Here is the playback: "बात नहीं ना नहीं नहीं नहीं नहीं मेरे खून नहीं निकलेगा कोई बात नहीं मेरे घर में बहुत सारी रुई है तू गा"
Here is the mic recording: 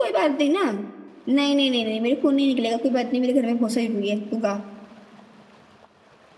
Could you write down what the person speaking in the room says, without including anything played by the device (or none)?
none